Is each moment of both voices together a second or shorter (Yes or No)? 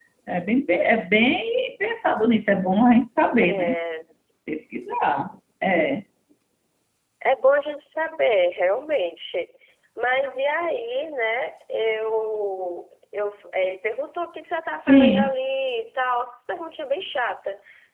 Yes